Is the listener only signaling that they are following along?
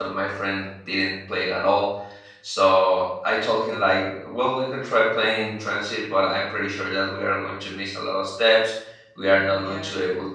Yes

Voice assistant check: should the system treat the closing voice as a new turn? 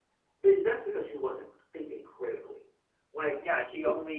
Yes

